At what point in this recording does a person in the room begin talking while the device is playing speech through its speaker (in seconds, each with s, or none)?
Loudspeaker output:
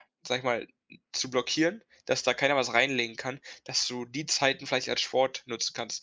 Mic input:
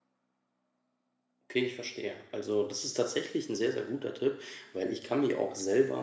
1.5 s